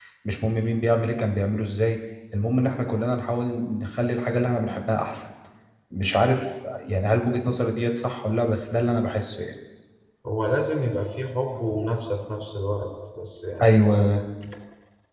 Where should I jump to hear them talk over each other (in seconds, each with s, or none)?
none